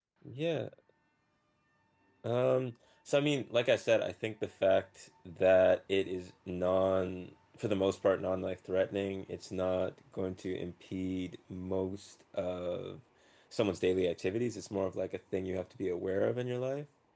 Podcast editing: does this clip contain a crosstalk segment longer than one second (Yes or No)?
No